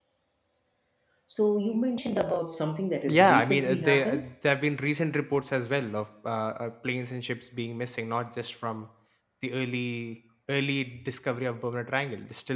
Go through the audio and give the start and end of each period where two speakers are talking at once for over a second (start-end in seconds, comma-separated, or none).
3.1-4.3